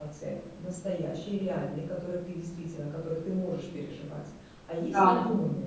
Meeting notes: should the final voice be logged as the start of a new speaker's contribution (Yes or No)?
No